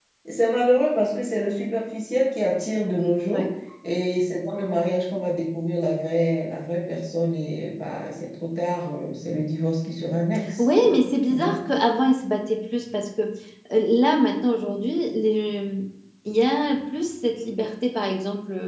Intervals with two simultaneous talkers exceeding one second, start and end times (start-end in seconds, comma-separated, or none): none